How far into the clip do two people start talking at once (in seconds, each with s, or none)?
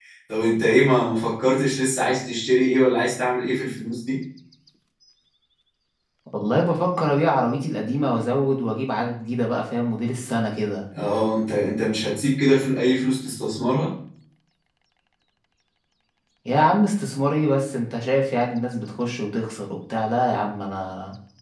none